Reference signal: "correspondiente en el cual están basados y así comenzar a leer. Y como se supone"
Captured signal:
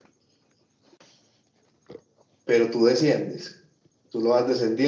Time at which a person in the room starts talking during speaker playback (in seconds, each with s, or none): 2.4 s